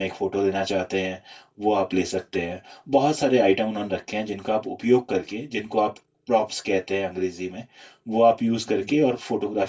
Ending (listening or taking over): listening